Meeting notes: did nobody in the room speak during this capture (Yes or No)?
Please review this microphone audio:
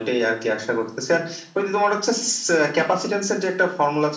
Yes